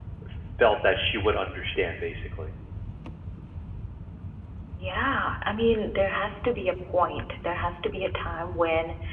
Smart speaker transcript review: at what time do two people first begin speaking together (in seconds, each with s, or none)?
none